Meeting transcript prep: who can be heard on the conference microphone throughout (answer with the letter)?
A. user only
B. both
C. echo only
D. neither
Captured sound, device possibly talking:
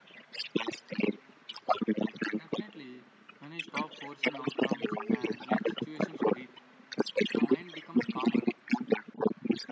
B